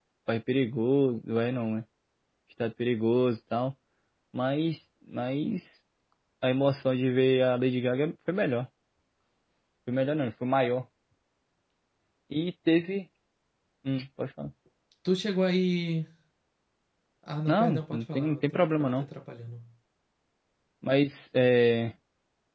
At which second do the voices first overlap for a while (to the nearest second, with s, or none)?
17 s